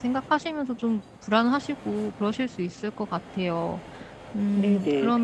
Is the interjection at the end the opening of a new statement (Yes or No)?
Yes